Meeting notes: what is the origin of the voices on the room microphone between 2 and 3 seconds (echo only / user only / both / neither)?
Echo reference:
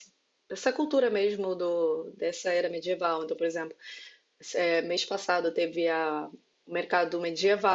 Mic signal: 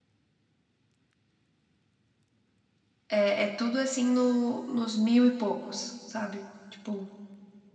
neither